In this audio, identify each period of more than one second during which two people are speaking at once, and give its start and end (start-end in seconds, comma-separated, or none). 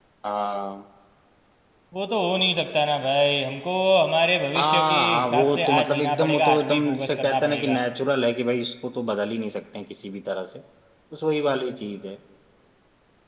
4.5-7.8